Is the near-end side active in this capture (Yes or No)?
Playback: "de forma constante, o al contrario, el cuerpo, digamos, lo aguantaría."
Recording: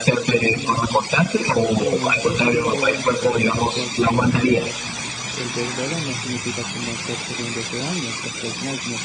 Yes